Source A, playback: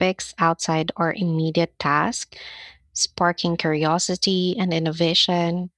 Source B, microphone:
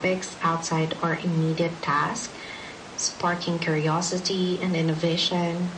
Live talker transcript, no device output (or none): none